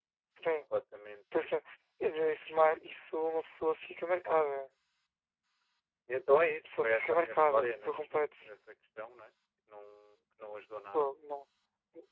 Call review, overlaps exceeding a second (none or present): present